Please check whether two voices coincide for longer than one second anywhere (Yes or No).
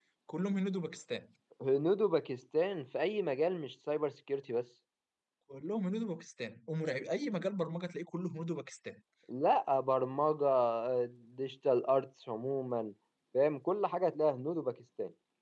No